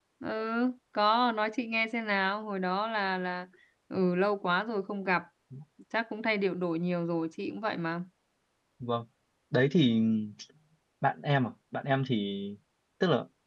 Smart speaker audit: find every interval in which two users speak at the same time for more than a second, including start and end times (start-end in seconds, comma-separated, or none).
none